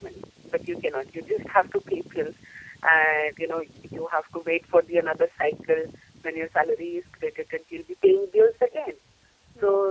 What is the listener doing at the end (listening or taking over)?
listening